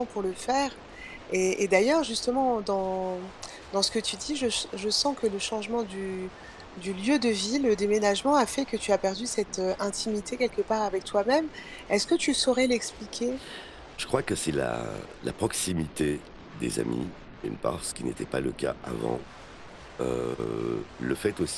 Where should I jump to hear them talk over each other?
none

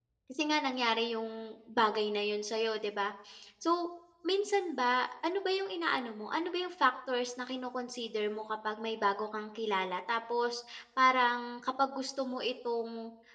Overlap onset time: none

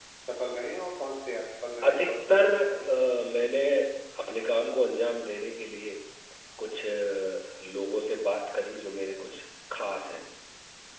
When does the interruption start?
2 s

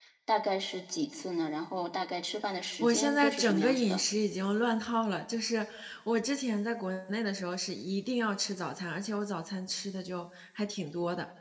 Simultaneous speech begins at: 3 s

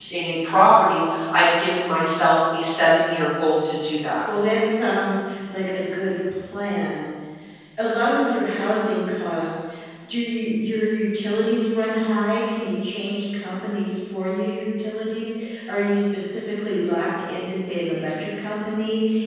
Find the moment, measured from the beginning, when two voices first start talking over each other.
none

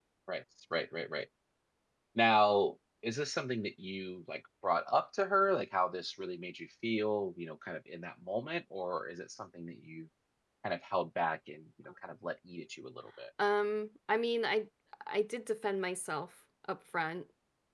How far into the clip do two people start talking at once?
none

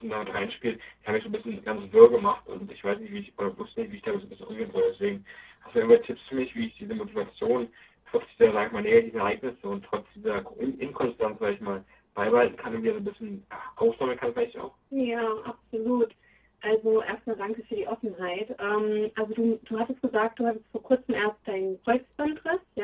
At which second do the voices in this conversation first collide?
none

